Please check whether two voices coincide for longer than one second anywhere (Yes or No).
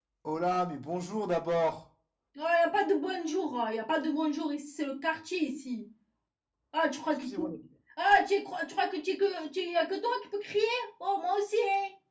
No